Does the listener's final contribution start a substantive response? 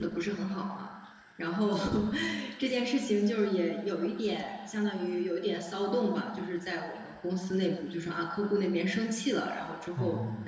No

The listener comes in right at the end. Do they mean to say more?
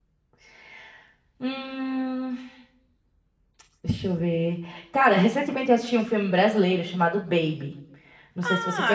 Yes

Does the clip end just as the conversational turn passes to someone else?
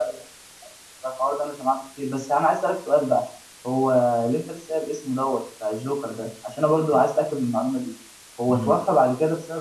No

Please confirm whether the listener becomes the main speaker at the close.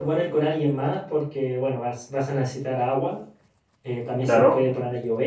No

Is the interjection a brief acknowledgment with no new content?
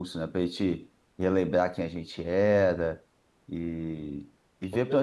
Yes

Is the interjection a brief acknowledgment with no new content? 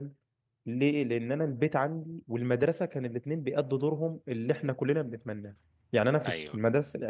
Yes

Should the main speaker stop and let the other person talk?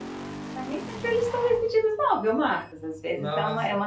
No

